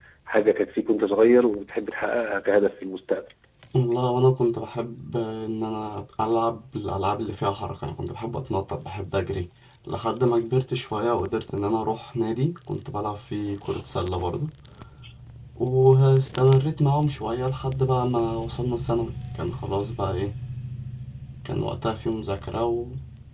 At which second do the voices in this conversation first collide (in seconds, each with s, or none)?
none